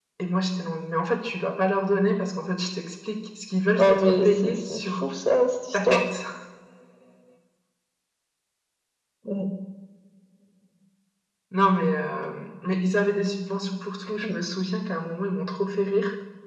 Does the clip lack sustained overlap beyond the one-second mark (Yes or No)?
No